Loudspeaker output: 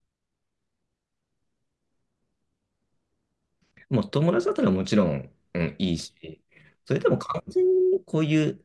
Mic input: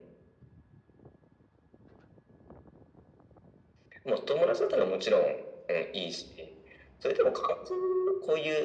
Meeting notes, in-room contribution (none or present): none